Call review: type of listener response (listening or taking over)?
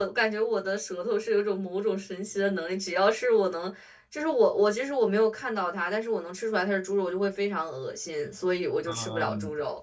taking over